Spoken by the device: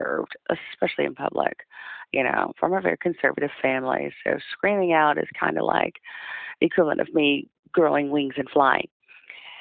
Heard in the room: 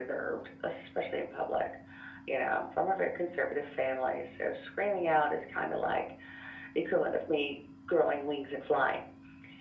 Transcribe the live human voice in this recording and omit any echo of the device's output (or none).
none